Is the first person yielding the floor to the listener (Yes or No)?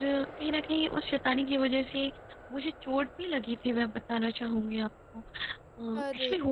No